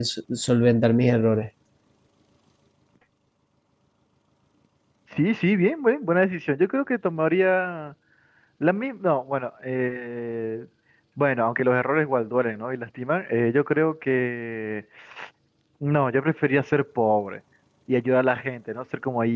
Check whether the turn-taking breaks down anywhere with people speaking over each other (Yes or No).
No